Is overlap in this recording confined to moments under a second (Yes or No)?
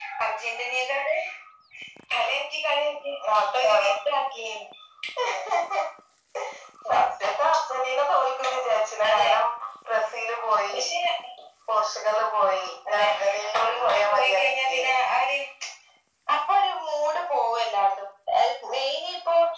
No